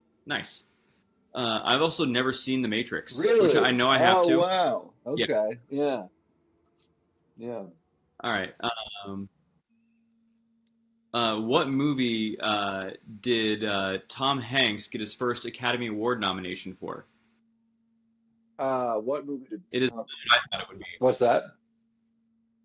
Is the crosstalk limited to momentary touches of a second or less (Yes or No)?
No